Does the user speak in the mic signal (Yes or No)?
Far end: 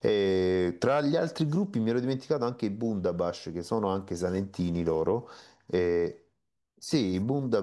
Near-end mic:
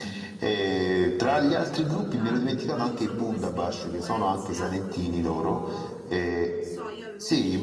Yes